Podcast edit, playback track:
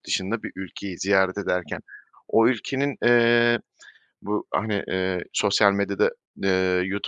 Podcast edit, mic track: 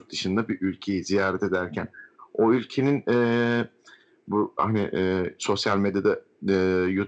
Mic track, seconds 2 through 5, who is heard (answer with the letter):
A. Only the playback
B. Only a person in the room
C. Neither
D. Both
A